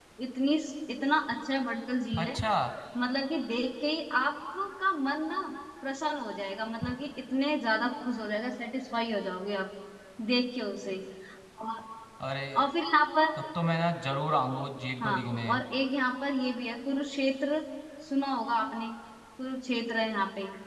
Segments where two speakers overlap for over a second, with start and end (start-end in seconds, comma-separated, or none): none